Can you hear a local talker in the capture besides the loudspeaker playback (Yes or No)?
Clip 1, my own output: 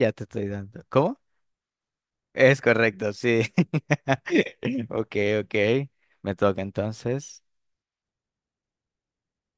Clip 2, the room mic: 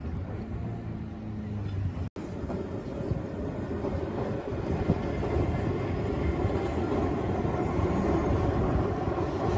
No